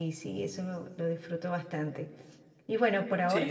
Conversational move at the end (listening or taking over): taking over